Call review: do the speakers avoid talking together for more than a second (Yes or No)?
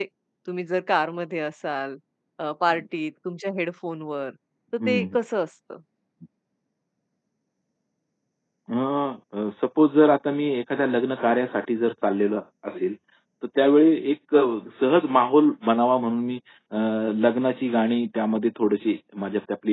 Yes